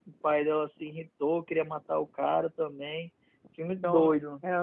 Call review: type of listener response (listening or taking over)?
taking over